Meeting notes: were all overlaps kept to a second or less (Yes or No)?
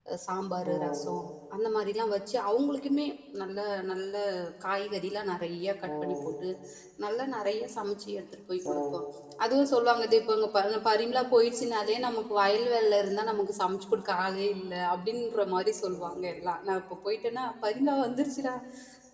Yes